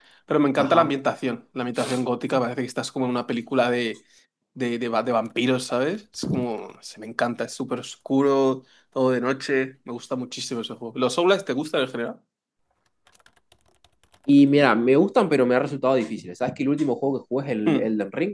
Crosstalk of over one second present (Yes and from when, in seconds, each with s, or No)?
No